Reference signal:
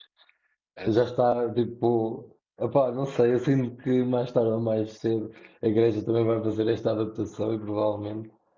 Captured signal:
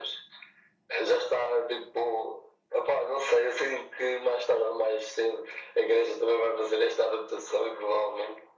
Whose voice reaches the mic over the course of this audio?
echo only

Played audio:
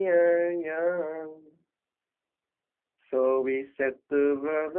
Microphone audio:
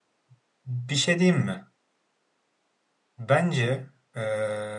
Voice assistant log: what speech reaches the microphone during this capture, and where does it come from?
user only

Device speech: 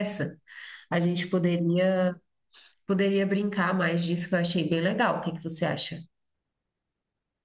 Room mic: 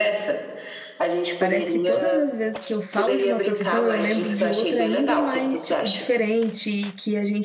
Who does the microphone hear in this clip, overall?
both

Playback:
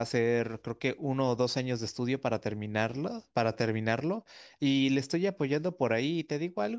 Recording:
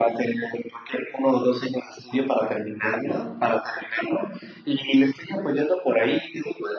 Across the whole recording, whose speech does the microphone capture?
echo only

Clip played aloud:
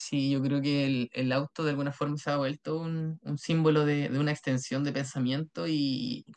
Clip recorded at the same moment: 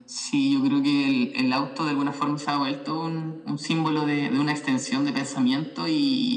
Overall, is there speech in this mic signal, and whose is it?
echo only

